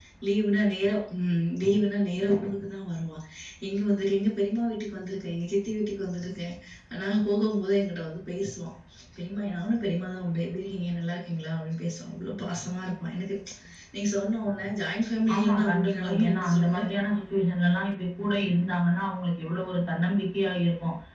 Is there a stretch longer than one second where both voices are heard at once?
Yes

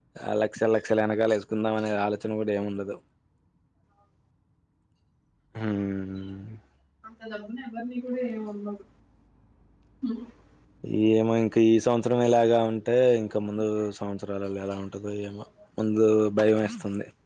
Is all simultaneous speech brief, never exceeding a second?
Yes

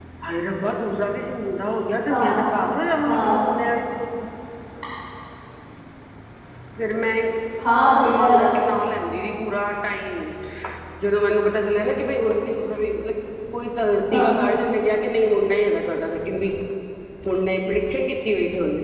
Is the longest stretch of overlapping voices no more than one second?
Yes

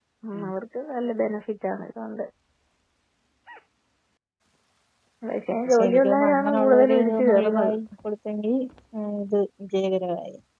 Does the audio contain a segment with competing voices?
Yes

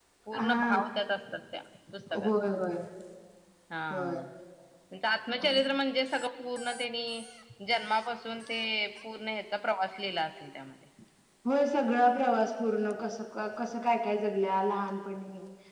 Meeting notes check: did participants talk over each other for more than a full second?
No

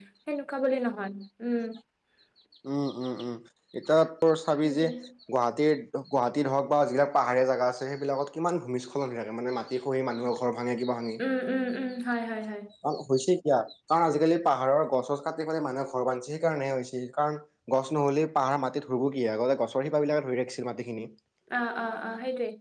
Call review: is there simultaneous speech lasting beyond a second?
No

